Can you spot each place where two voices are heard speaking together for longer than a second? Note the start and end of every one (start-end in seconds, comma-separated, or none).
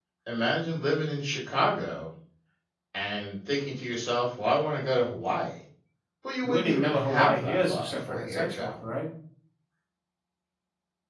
6.4-8.9